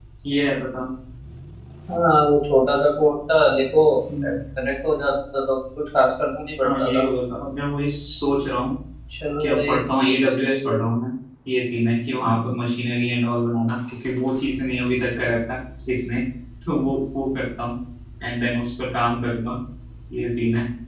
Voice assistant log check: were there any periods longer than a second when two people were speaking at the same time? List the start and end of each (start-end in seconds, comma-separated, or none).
none